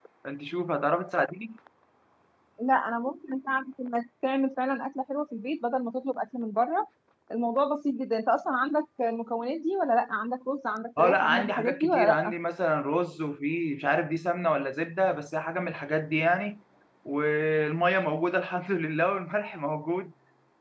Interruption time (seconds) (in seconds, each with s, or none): 11.0 s